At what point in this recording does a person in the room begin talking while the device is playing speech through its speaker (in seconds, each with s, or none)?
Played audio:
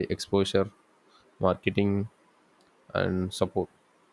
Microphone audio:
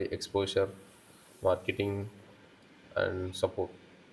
none